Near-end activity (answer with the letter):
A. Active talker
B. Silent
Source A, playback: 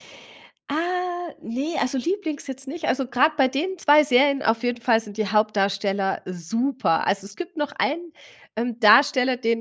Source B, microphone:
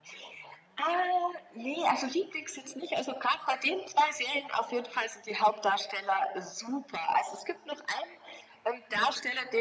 B